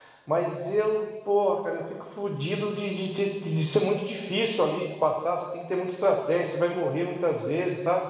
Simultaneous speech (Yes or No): No